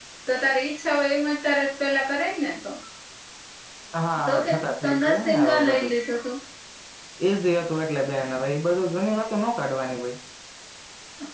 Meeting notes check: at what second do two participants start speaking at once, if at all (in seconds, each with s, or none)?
4.3 s